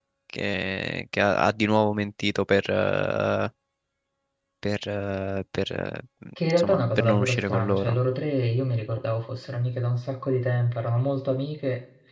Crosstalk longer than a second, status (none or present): present